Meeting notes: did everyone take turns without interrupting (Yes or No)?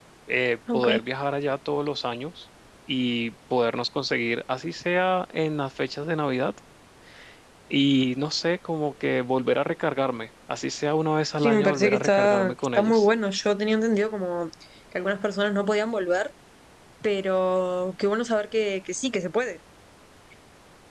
No